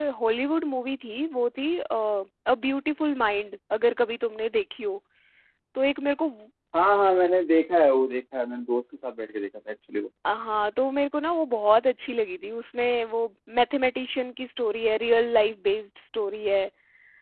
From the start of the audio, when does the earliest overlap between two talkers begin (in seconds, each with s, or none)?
none